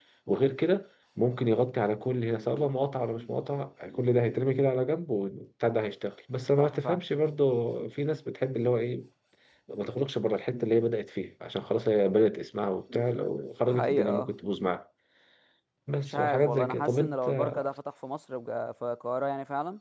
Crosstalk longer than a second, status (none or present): present